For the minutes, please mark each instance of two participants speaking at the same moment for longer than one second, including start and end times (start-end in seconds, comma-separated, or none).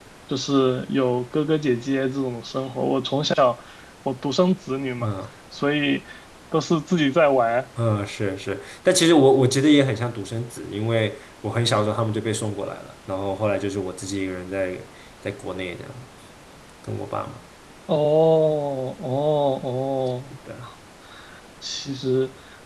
none